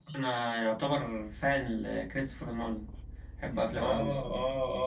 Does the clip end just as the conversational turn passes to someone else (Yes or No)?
Yes